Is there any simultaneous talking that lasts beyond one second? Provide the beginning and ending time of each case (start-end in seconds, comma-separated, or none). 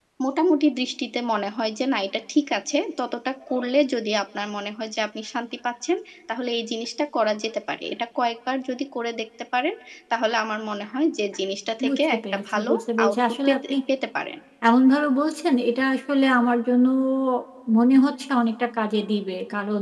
11.9-13.7